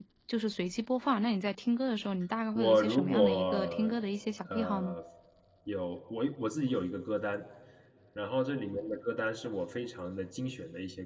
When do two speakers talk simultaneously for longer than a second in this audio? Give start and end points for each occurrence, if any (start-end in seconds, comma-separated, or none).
2.5-4.0